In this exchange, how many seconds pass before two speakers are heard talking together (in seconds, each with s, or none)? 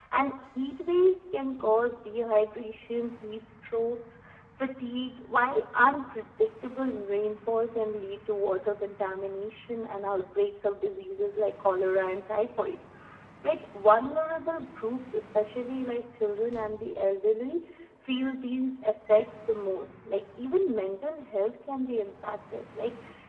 none